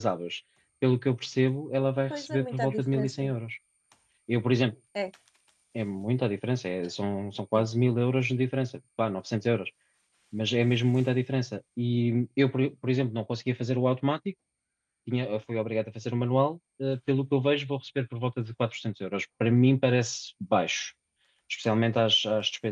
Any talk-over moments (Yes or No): Yes